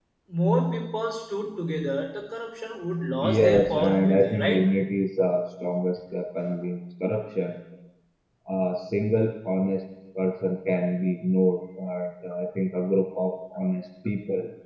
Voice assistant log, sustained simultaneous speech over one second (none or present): present